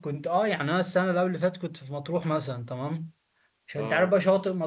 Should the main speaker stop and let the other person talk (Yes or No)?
No